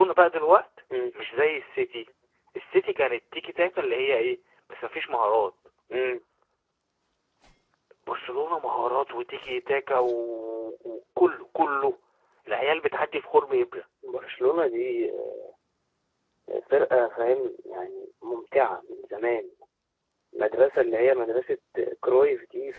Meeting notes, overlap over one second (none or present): none